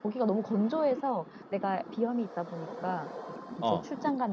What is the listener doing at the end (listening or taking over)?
listening